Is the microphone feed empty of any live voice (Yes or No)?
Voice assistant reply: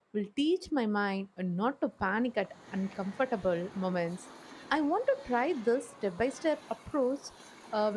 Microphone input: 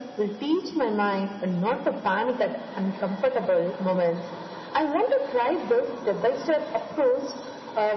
Yes